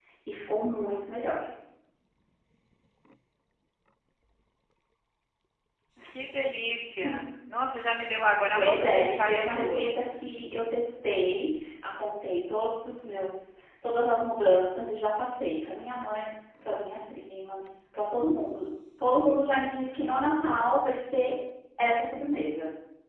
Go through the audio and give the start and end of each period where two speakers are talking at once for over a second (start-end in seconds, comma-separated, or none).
8.5-9.9